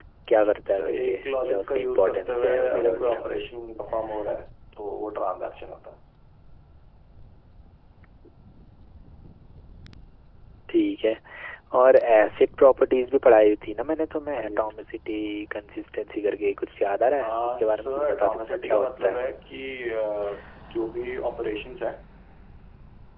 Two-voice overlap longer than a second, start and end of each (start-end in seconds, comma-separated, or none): 0.7-3.2, 17.2-19.2